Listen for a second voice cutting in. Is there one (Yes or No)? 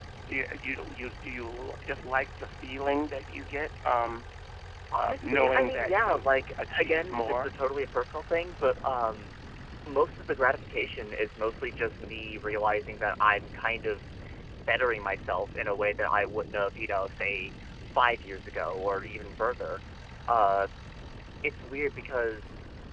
Yes